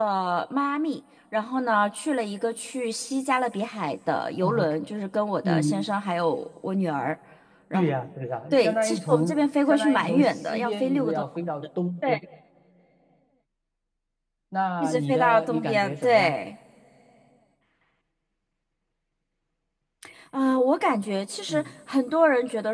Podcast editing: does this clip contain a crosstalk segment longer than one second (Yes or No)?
Yes